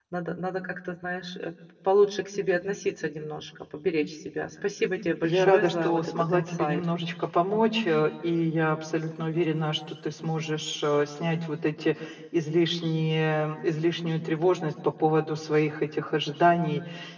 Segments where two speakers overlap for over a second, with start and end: 5.2-6.8

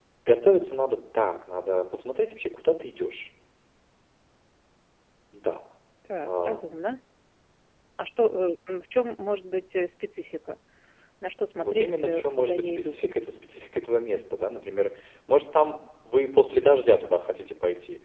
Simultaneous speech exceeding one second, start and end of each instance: 11.6-13.0

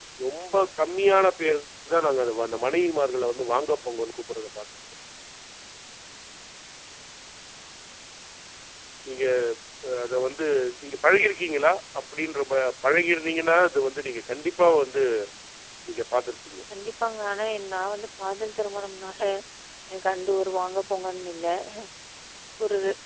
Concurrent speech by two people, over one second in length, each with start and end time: none

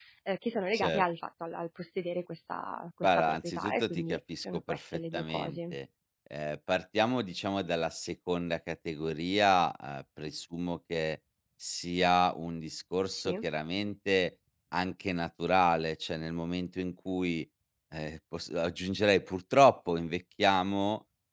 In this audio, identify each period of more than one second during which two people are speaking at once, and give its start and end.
3.0-5.8

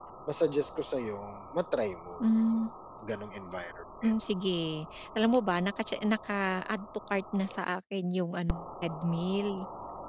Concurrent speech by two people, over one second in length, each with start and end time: none

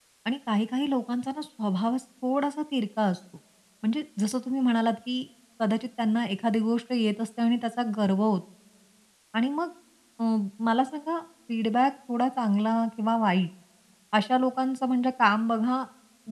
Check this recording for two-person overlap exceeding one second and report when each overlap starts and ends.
none

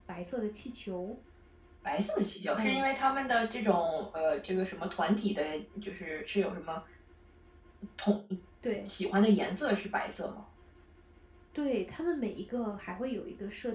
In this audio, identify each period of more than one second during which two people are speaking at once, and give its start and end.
none

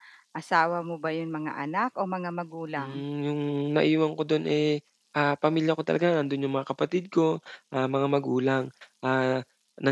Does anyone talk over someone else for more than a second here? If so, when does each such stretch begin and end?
none

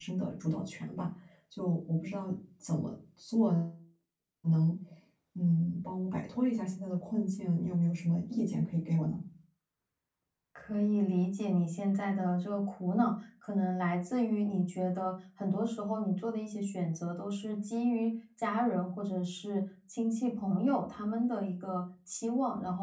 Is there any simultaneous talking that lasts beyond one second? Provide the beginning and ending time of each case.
none

